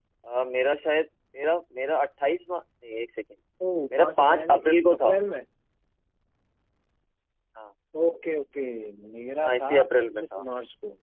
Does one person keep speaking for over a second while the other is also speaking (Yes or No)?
Yes